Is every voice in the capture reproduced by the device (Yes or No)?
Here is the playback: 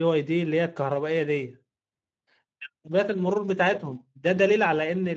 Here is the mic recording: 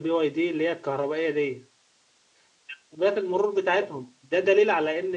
Yes